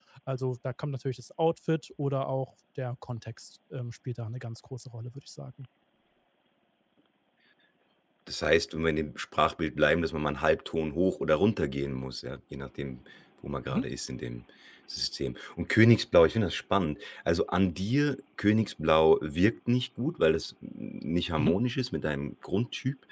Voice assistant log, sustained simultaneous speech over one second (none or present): none